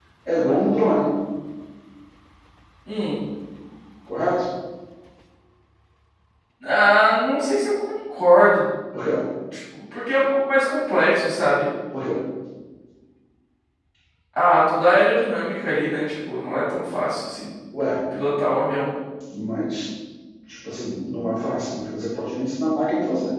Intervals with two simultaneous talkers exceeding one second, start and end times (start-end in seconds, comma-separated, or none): none